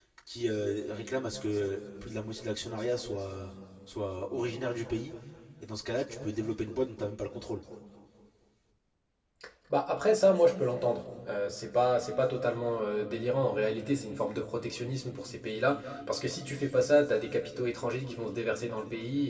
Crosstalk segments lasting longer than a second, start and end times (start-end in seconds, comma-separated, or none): none